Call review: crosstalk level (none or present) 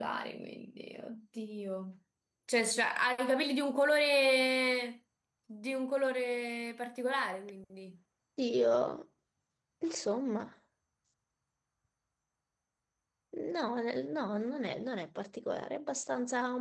none